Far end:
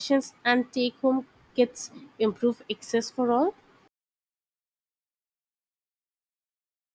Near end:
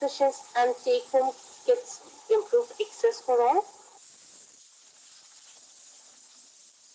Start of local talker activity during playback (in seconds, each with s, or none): none